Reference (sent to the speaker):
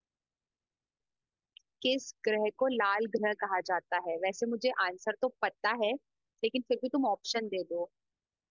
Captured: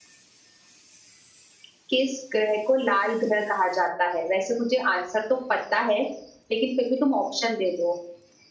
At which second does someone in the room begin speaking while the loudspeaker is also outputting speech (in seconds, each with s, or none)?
none